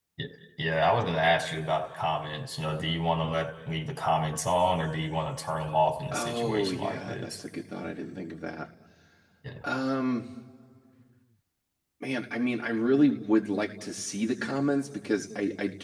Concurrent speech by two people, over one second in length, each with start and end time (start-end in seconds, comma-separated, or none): 6.1-7.4